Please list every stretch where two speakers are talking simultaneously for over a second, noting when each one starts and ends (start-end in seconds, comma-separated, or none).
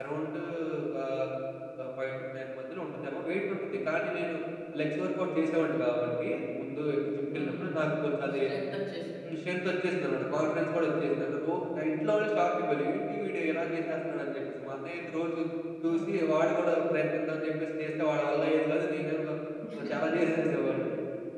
none